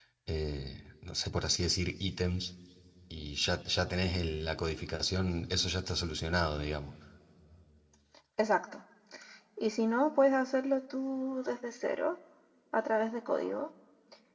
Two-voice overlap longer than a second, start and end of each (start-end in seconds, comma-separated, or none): none